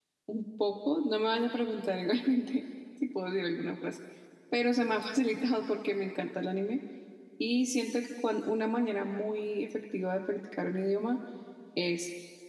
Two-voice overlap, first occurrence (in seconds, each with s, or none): none